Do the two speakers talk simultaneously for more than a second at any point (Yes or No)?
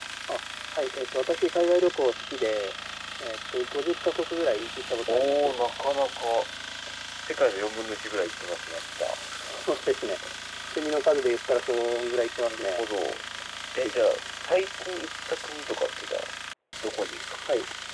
No